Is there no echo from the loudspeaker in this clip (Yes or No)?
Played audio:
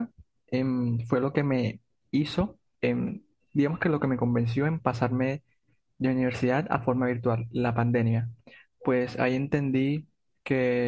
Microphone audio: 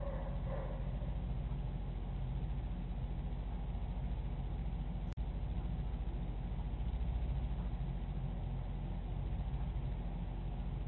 Yes